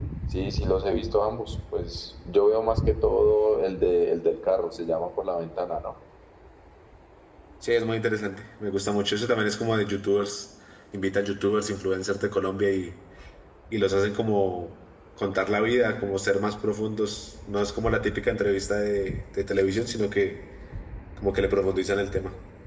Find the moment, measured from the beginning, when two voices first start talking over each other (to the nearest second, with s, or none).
none